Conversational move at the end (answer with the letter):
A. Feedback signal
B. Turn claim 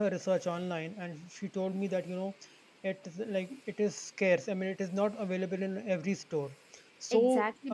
B